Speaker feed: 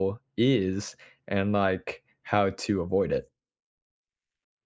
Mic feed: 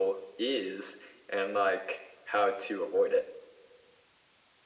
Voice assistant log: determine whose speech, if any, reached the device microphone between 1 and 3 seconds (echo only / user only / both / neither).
echo only